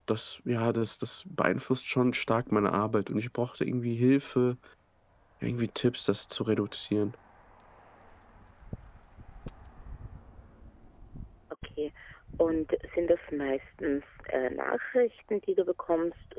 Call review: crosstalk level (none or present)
none